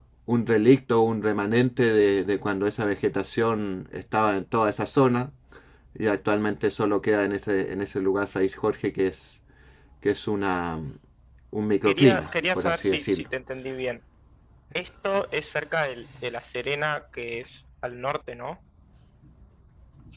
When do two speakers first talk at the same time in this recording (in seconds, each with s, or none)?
11.8 s